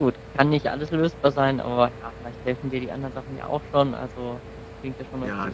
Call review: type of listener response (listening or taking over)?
taking over